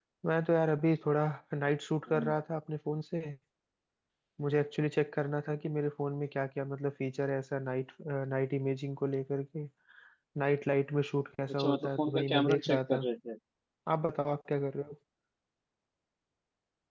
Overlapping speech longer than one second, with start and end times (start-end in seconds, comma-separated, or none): 11.5-13.1